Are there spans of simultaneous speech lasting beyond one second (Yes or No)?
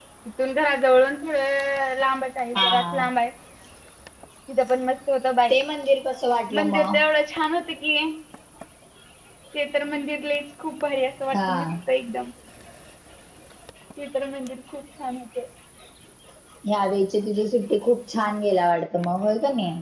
No